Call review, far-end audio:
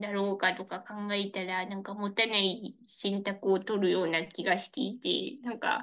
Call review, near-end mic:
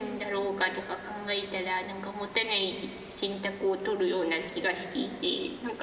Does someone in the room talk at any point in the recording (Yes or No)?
No